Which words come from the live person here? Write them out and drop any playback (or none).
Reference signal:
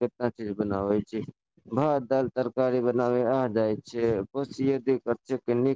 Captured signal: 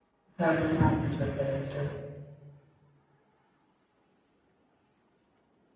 तऽ ना कुछो करै छै